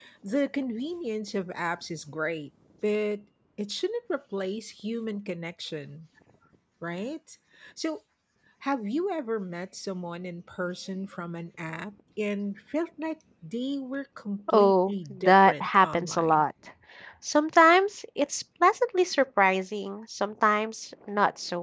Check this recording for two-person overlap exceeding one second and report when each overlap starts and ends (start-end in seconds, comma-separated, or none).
14.5-16.4